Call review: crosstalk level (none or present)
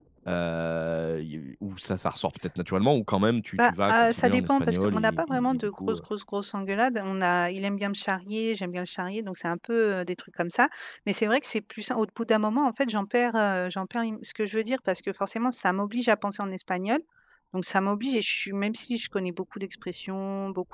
present